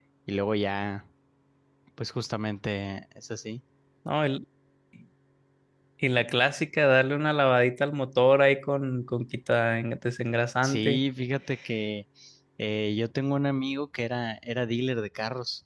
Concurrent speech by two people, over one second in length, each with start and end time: none

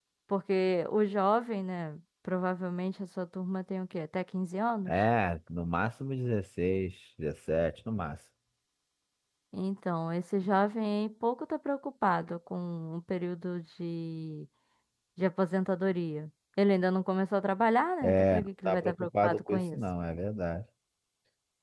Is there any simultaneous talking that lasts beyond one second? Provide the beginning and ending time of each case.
18.0-19.8

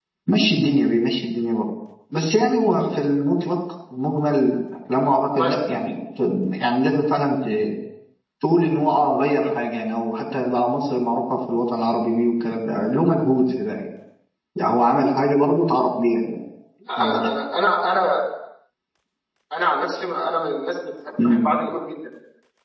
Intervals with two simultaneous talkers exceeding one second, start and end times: none

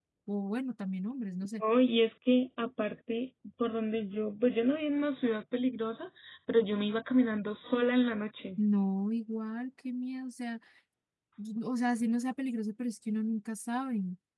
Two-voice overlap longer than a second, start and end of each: none

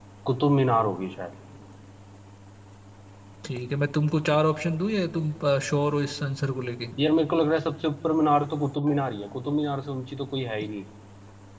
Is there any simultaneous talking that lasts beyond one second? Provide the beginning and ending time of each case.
none

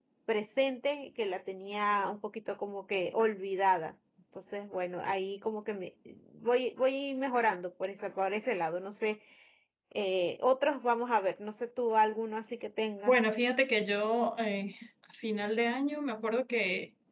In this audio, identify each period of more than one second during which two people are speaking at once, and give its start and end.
none

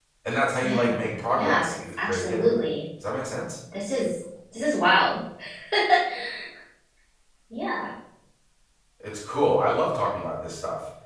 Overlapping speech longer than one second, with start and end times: 0.6-2.6

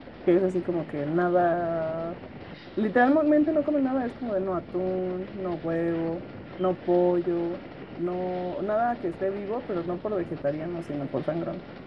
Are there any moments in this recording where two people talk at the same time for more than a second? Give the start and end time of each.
none

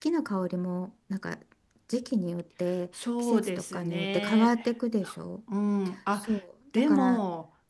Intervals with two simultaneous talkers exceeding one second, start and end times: 3.2-4.5

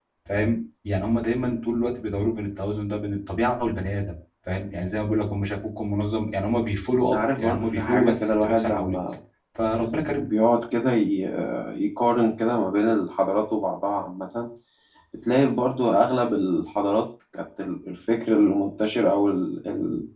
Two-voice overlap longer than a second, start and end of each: 7.1-9.0

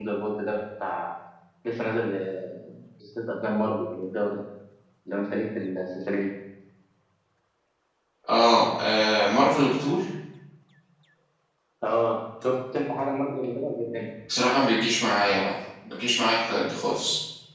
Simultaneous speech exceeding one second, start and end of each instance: none

